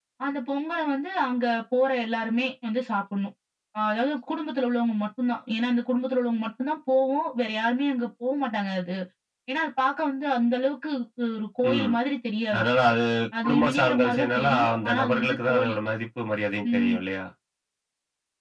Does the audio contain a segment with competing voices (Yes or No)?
Yes